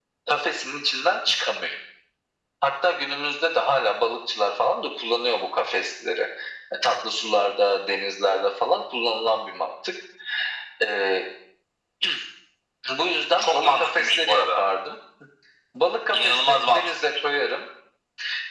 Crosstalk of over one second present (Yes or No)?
Yes